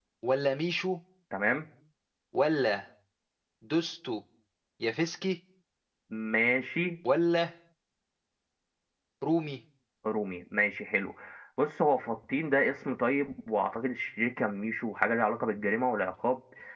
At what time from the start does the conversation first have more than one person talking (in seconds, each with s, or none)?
none